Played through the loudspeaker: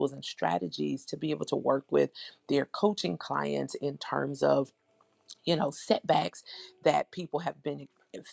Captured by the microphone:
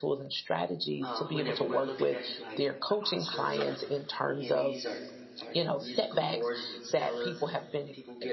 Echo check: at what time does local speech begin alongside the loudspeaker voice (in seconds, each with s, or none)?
1.0 s